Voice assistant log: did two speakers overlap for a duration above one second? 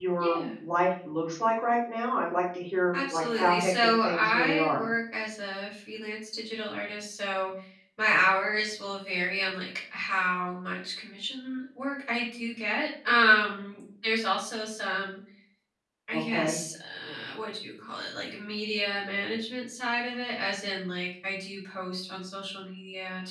Yes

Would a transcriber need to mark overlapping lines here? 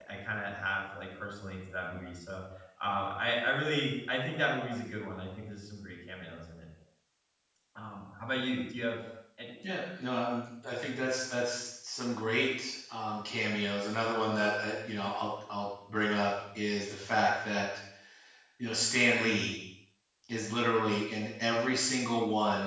No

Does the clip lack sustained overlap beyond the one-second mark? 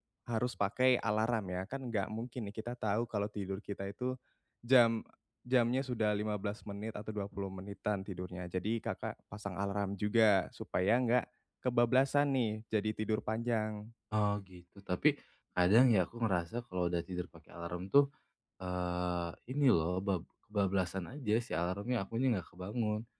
Yes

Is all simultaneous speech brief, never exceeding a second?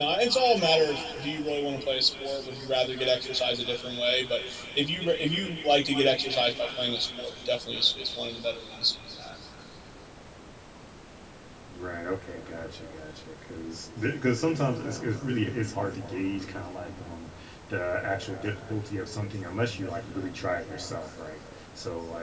Yes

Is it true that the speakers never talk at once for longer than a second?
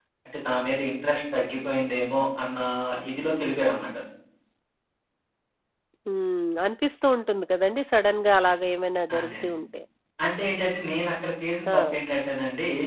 Yes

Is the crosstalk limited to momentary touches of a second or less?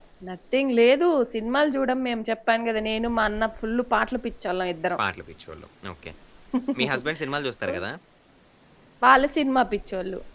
Yes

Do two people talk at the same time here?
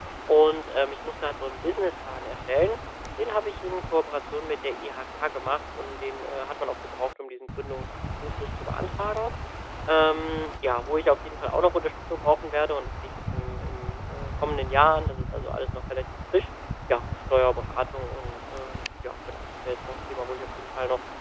No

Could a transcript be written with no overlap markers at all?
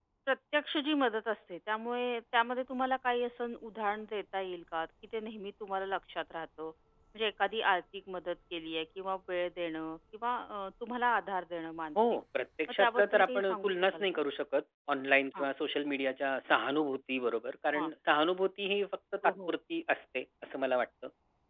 No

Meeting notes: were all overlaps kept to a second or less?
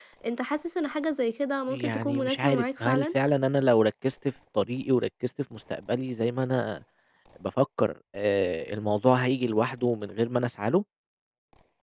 No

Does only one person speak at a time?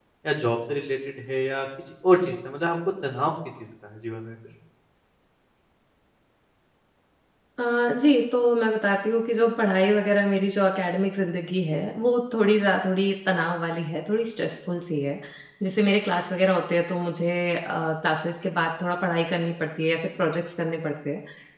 Yes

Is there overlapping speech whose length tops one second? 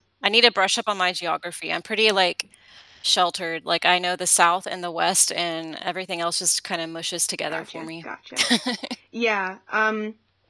No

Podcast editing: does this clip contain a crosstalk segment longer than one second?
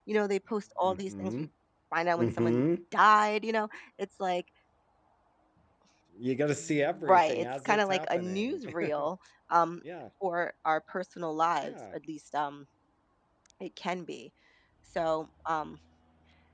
Yes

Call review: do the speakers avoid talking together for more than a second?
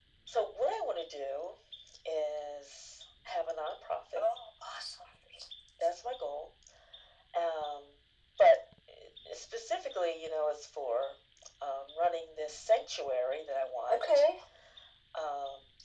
Yes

